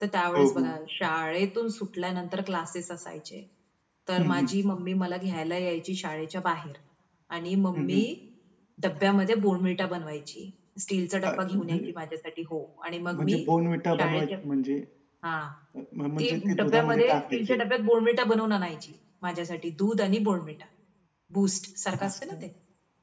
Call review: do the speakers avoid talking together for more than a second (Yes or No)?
No